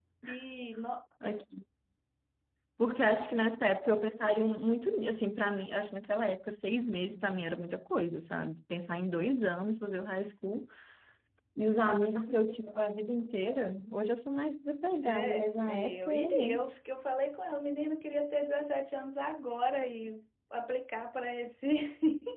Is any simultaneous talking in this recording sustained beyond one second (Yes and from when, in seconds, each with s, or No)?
Yes, from 15.0 s